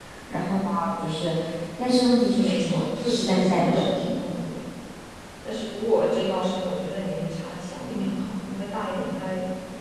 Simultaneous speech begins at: 2.4 s

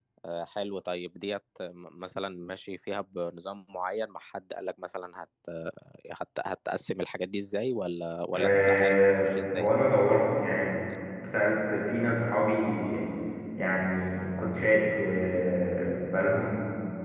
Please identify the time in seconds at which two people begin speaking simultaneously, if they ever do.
8.3 s

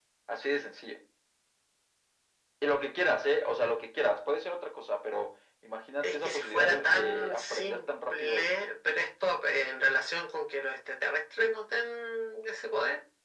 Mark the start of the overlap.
6.0 s

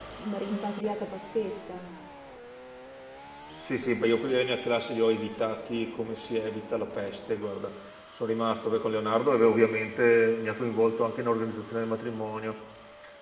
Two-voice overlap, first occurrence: none

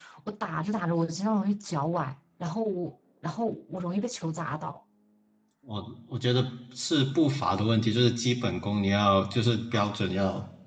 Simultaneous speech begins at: none

